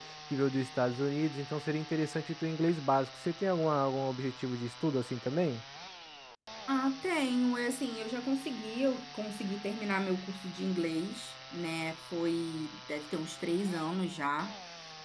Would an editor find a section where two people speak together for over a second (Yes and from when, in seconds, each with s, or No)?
No